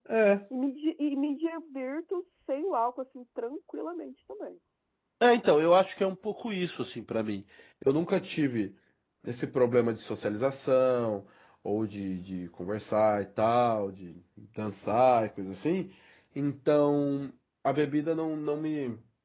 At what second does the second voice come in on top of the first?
none

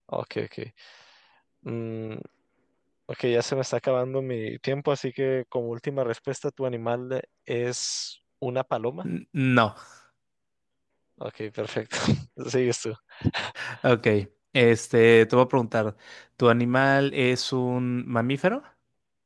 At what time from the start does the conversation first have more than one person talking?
none

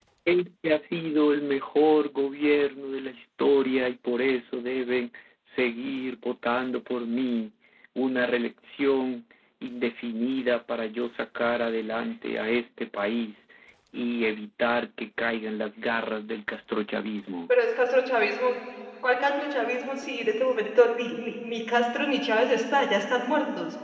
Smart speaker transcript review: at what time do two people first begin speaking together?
none

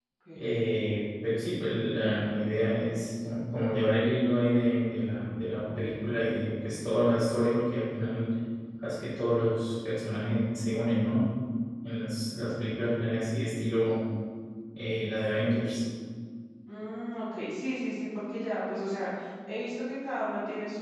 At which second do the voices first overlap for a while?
none

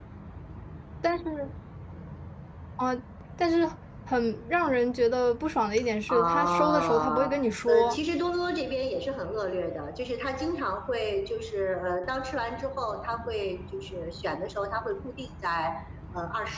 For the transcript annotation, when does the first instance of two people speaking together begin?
6 s

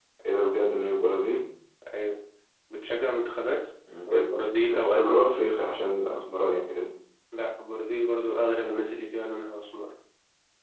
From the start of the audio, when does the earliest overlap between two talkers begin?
4 s

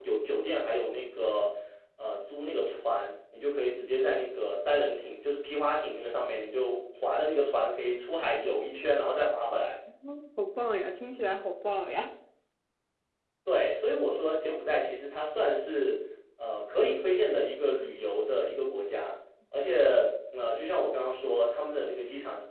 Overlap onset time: none

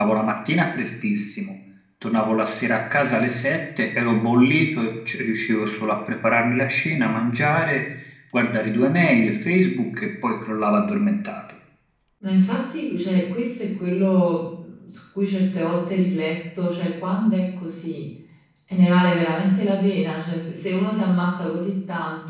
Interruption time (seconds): none

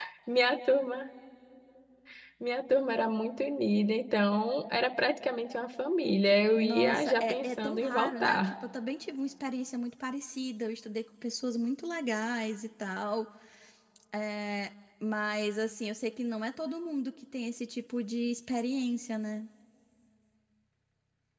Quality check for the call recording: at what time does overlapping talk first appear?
7 s

